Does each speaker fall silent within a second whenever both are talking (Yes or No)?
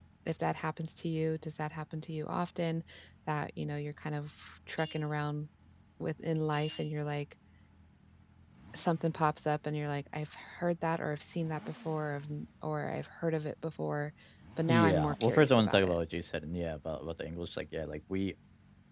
No